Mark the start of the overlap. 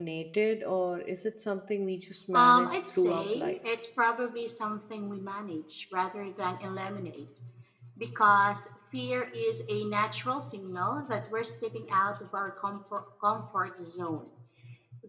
2.3 s

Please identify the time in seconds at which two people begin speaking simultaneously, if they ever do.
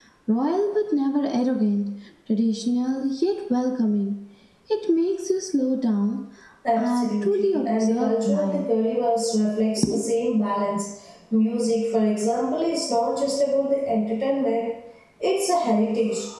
6.8 s

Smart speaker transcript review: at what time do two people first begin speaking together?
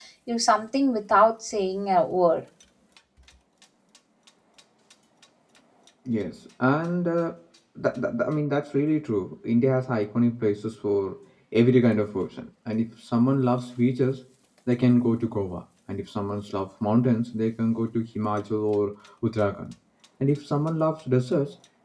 none

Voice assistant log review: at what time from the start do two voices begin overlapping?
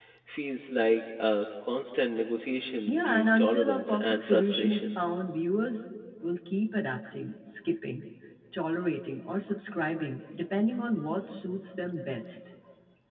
2.9 s

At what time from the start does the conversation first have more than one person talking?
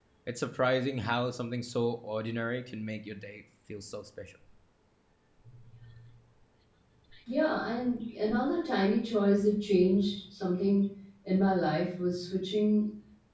none

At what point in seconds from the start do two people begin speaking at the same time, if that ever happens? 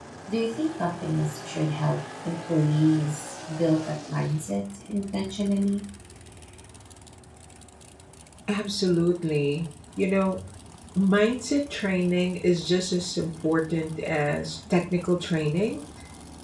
none

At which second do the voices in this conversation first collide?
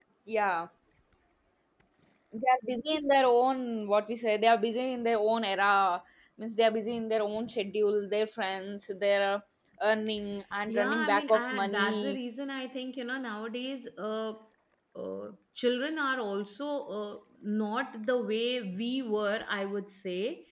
10.7 s

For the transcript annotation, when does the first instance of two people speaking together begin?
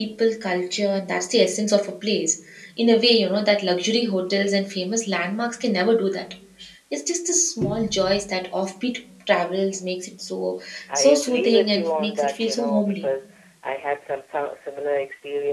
10.9 s

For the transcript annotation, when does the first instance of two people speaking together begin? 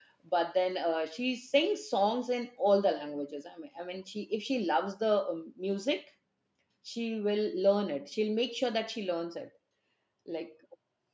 none

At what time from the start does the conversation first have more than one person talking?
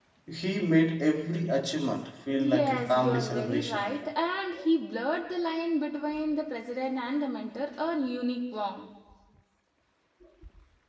2.3 s

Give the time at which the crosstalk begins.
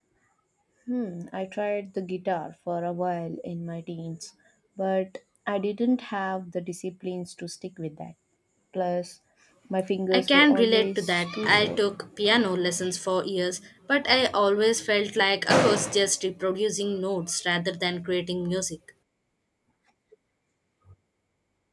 10.1 s

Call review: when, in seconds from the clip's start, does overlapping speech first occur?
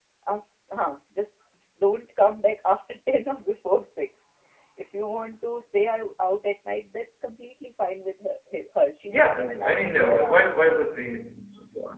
9.1 s

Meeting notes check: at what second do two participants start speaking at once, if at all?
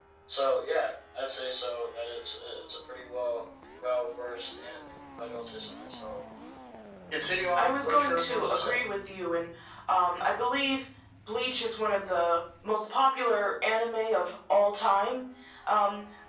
7.6 s

